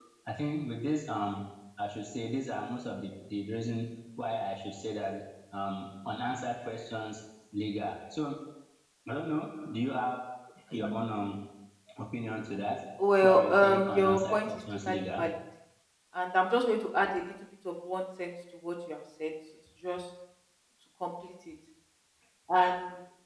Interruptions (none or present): present